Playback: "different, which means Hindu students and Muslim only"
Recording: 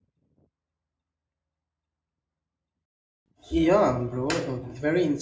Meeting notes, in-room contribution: present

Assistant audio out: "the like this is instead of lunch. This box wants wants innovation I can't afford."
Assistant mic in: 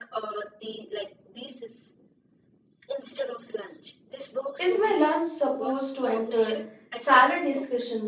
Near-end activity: present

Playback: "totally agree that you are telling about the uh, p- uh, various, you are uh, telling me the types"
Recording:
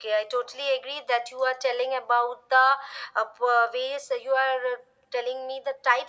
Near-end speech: none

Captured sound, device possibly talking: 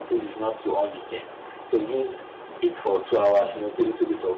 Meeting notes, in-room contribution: none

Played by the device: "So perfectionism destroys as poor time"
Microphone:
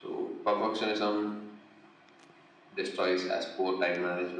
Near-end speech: none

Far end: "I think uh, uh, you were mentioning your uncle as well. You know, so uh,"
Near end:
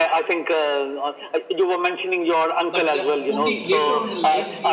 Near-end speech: present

